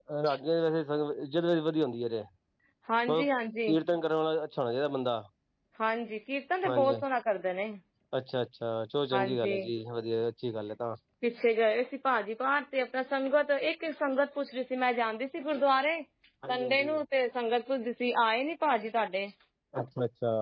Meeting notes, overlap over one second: none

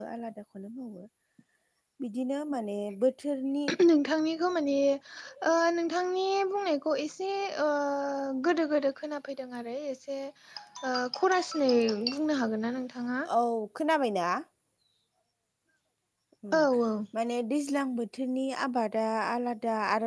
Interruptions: none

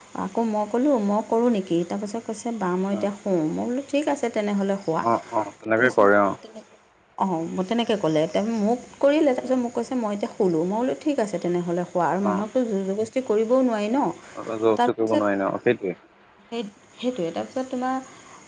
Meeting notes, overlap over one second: none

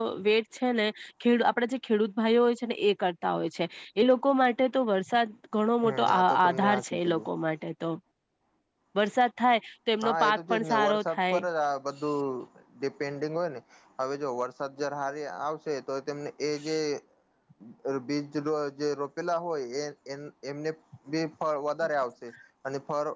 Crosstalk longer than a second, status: present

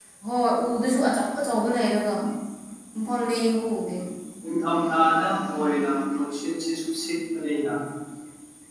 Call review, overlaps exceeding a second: none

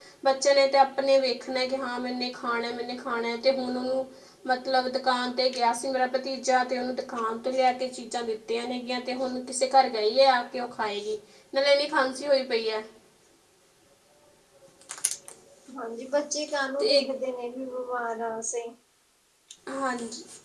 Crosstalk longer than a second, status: none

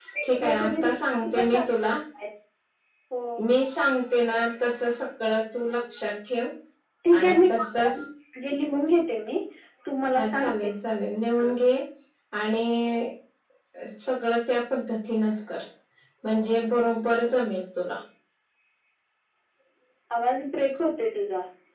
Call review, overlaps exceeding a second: present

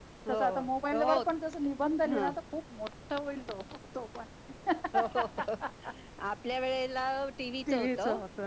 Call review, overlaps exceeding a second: none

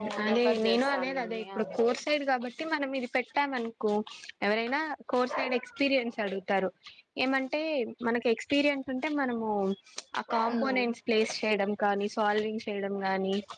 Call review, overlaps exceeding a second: present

